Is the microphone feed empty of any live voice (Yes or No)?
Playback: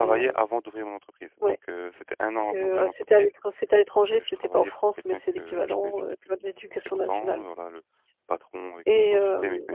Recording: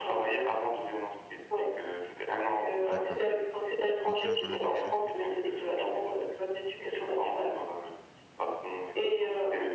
No